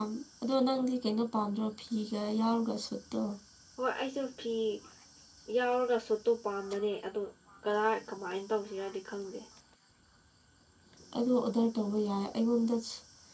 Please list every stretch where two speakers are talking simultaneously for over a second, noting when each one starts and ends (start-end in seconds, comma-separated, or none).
none